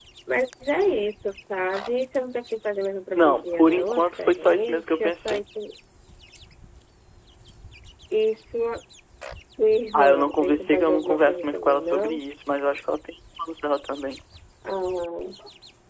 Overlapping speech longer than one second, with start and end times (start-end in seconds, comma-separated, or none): 3.1-5.4, 9.9-12.2